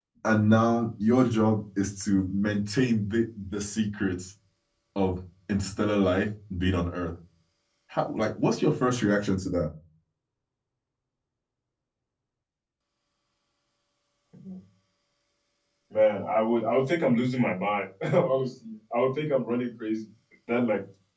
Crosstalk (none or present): none